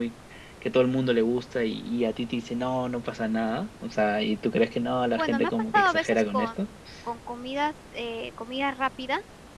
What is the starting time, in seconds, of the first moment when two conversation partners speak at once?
5.2 s

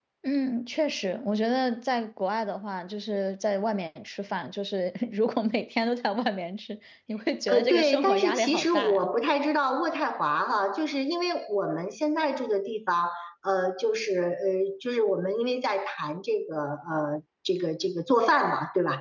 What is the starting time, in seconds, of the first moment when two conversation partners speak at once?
7.5 s

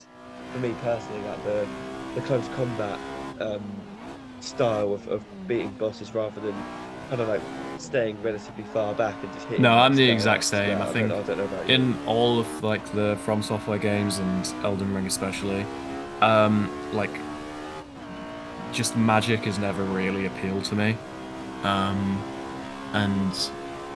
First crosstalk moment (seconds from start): 9.6 s

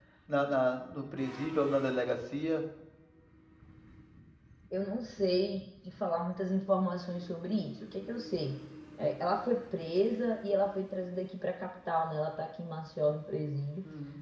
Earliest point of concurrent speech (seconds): none

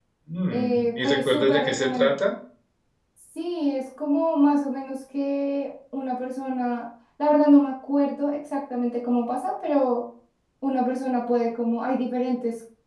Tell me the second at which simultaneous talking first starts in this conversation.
0.5 s

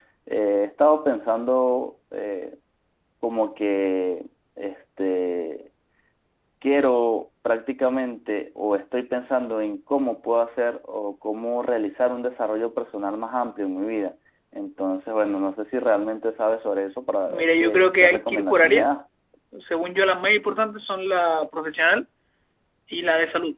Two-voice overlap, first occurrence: 17.3 s

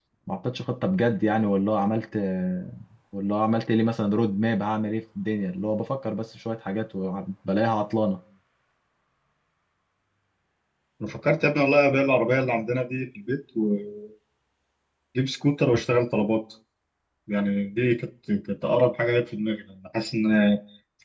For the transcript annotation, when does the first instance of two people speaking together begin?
none

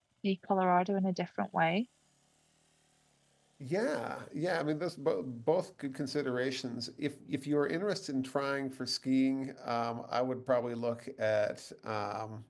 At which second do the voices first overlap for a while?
none

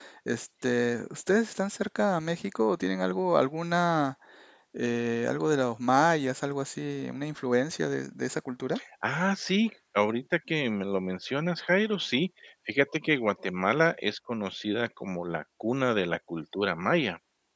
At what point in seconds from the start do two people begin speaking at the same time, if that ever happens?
none

